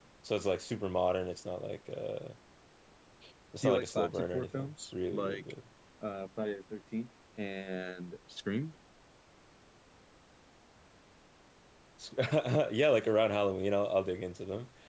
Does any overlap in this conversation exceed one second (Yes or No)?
Yes